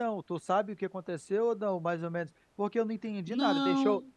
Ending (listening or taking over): listening